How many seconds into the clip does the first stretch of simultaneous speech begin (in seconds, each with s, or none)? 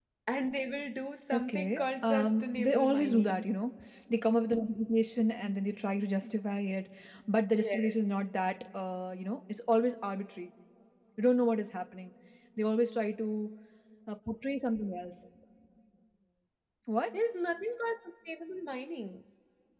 1.3 s